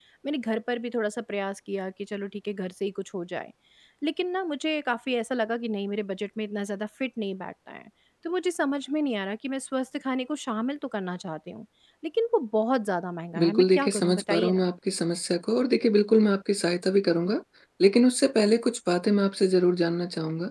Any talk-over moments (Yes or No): Yes